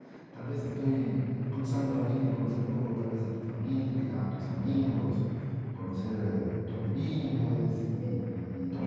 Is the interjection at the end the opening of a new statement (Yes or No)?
Yes